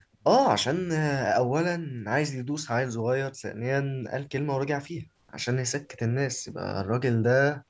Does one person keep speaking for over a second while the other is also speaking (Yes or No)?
No